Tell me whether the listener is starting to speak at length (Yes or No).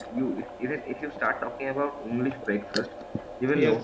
No